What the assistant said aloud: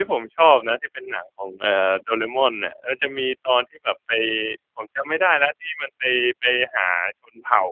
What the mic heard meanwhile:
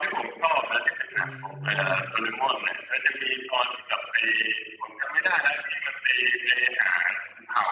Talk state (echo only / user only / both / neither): both